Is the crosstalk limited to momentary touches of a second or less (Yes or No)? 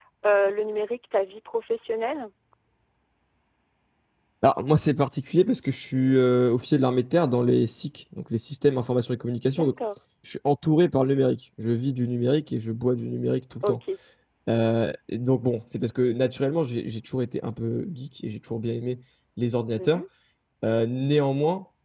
Yes